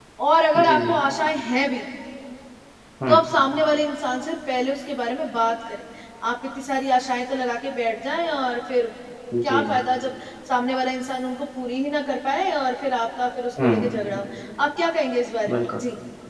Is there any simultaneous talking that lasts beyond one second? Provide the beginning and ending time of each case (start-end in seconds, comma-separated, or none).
none